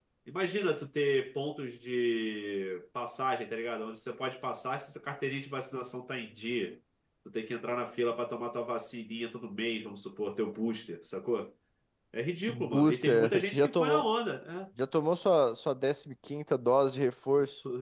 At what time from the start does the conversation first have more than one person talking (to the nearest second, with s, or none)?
12 s